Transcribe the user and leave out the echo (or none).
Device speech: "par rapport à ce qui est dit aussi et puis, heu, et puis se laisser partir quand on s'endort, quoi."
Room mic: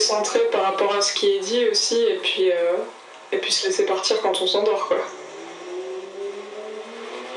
none